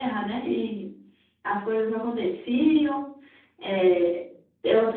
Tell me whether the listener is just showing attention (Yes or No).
Yes